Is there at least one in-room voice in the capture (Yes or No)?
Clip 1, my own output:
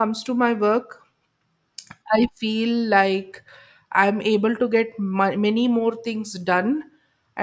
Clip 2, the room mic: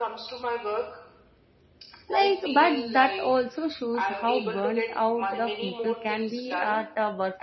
Yes